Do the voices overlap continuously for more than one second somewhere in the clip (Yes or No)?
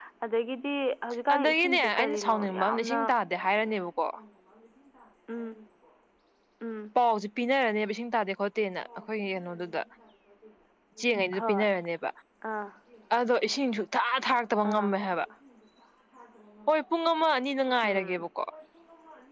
Yes